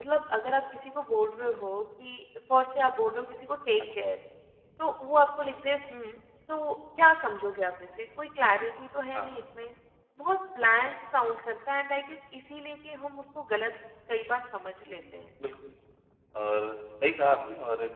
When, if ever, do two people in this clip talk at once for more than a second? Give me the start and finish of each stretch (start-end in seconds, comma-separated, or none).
none